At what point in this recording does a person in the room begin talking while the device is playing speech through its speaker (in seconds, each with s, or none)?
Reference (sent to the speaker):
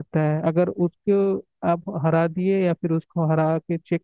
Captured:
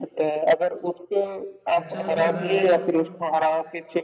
1.8 s